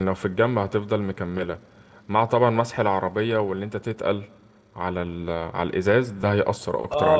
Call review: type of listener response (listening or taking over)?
taking over